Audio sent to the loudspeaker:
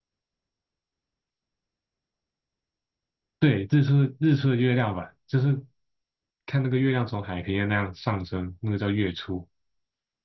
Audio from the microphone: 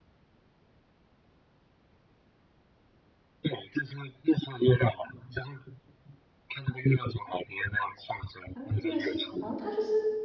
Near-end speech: present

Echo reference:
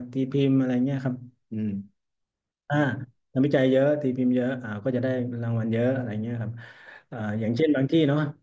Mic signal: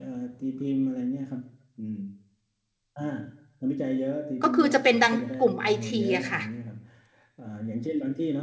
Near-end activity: present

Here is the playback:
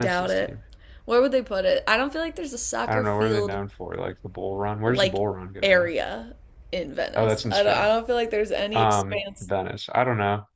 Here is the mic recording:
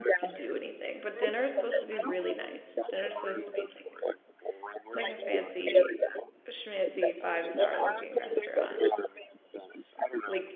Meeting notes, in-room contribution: present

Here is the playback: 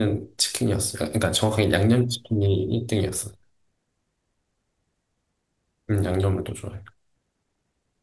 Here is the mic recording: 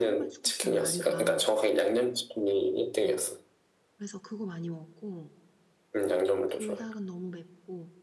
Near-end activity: present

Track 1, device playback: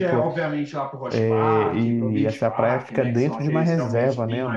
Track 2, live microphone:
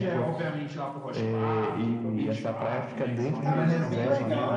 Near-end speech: present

